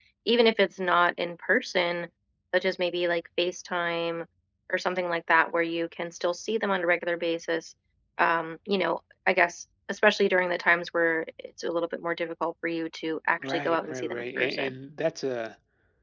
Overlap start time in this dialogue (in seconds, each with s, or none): 13.4 s